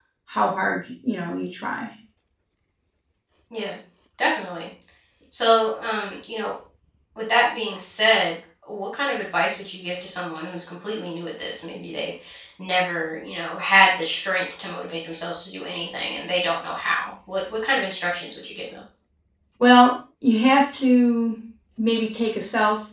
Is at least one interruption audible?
No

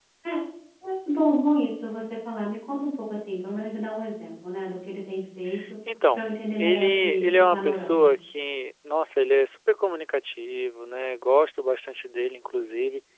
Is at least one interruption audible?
Yes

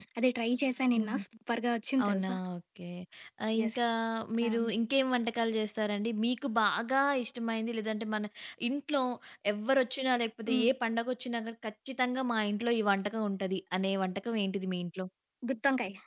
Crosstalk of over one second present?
No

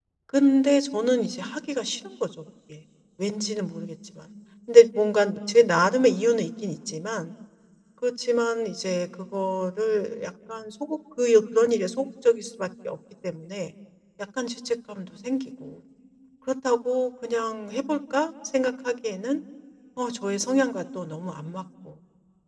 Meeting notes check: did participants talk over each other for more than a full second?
No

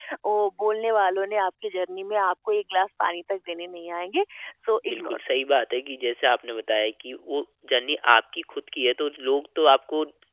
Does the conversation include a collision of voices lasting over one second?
No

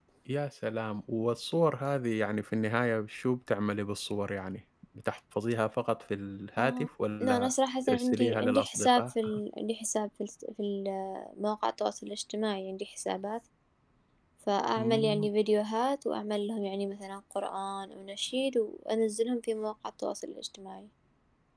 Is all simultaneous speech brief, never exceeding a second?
No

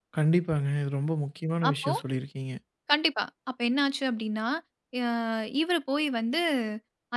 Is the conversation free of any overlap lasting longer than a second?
Yes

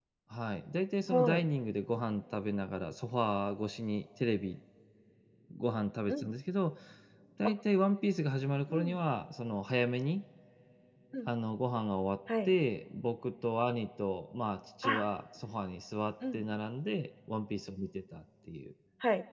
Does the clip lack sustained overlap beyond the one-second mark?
Yes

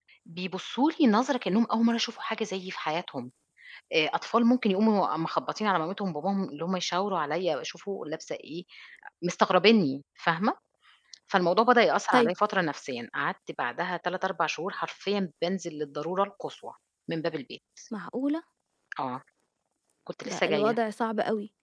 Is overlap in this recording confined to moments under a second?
Yes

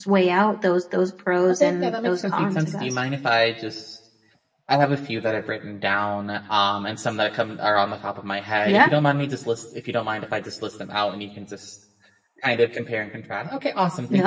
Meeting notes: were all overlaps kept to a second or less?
No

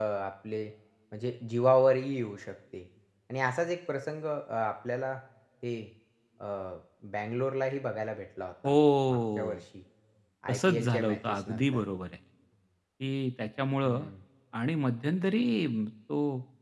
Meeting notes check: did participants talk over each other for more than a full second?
Yes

